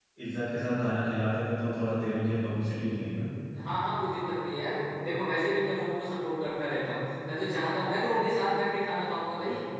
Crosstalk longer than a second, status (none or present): none